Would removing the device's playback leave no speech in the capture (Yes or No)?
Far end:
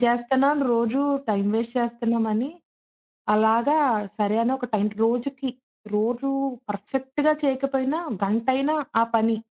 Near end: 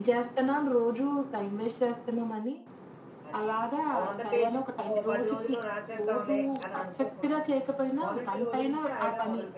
No